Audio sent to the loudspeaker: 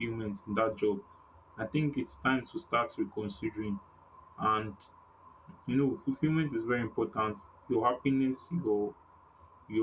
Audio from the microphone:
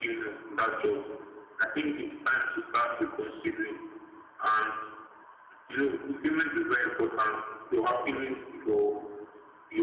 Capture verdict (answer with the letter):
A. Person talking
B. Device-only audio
B